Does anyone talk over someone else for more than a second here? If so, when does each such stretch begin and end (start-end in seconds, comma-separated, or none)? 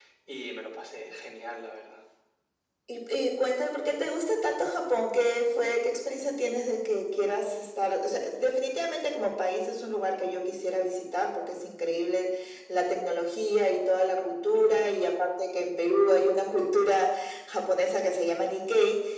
none